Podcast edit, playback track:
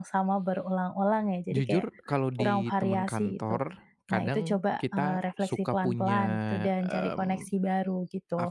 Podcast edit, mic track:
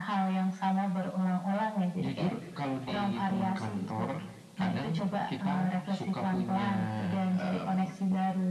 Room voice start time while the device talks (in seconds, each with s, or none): none